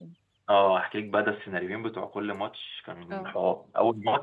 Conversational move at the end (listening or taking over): listening